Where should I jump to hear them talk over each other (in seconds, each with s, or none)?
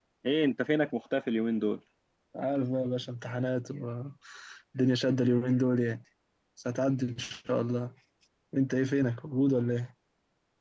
none